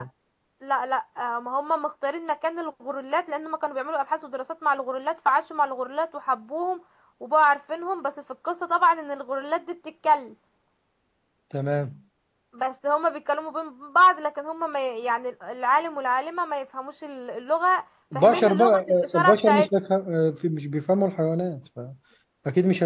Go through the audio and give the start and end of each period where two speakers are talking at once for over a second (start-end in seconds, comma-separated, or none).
18.1-19.7